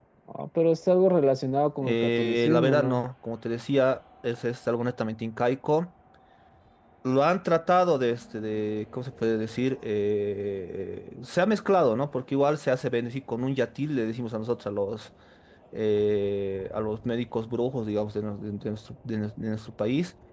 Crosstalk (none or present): present